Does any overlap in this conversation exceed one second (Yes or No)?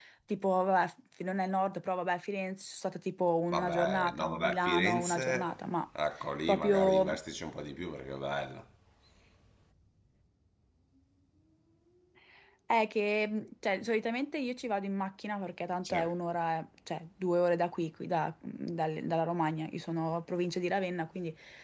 Yes